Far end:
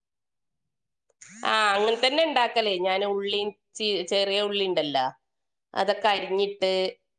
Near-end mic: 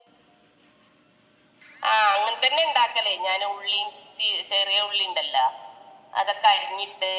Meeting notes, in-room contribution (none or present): none